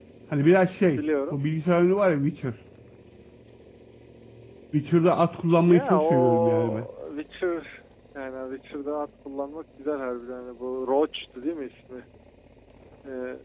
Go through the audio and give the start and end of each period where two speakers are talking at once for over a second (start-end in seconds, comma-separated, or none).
5.7-6.9